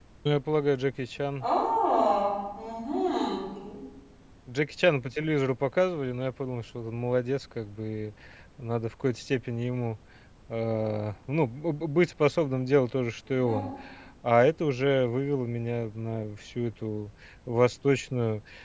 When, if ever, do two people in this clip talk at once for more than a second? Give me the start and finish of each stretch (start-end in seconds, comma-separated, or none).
none